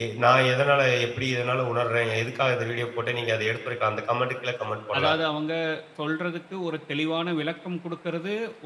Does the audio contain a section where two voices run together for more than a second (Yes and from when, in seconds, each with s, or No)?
No